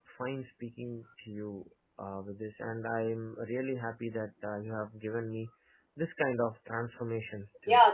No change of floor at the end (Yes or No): No